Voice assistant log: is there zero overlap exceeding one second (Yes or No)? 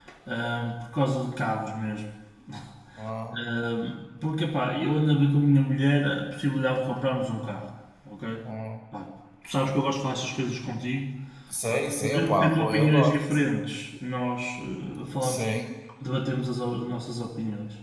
No